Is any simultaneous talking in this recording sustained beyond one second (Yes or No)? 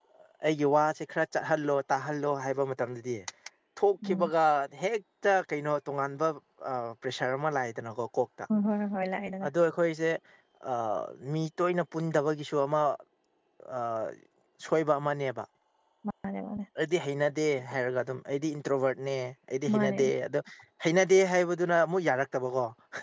No